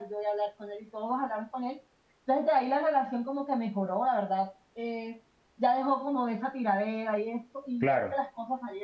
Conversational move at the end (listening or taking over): listening